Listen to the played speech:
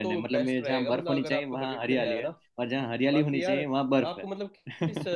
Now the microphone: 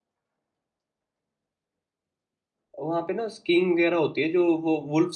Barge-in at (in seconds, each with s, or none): 2.8 s